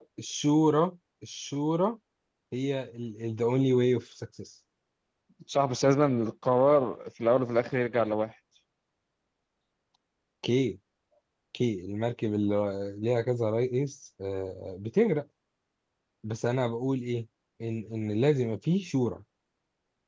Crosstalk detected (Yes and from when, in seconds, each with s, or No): No